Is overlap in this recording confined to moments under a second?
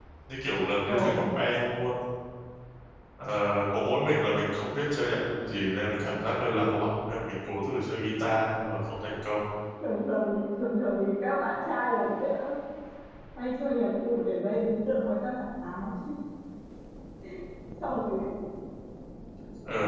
Yes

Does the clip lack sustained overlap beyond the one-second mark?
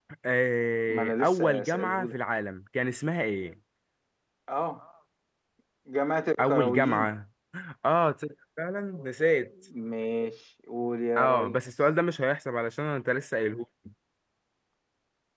No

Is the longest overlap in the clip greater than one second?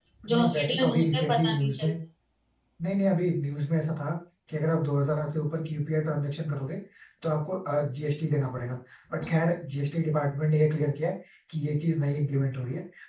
Yes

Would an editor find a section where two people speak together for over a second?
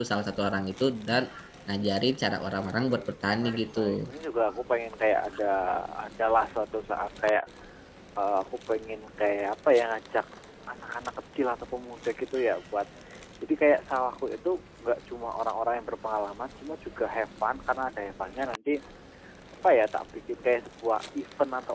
Yes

